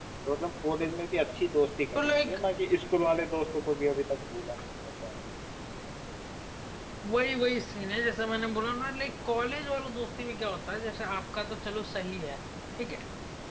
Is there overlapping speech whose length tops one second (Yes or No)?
No